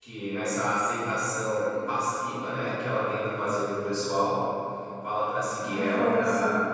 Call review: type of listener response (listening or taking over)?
listening